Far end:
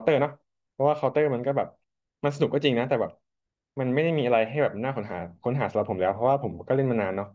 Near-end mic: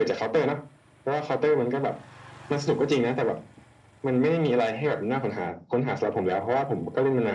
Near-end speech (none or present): none